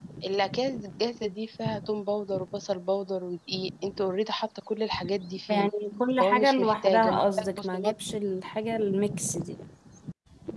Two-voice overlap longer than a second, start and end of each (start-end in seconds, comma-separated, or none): 6.2-7.9